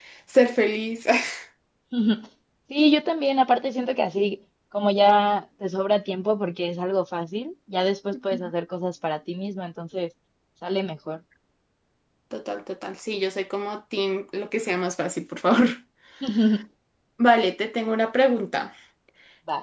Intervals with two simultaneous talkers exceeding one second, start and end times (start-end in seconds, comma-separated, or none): none